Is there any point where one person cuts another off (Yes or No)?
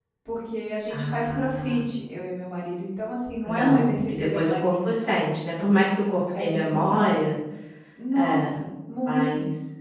Yes